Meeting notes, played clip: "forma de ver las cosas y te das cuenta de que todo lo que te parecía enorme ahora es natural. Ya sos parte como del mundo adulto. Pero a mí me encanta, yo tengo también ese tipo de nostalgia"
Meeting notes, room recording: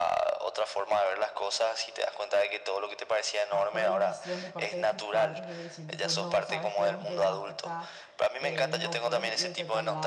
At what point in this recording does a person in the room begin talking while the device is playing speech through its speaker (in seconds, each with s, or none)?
3.5 s